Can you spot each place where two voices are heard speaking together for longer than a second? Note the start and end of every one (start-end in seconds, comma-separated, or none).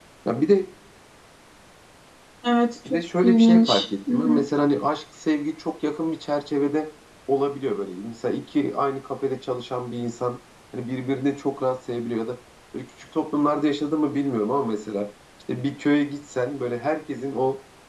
2.9-4.4